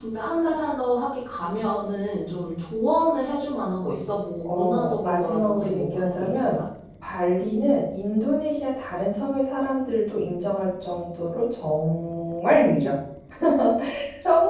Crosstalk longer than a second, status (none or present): present